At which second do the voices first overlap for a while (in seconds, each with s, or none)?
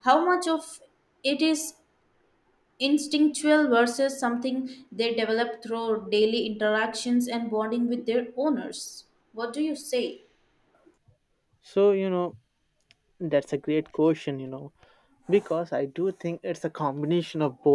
none